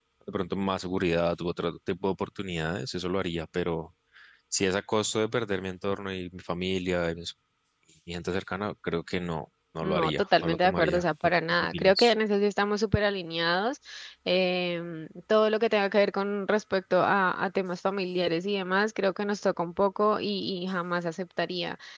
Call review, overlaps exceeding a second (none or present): present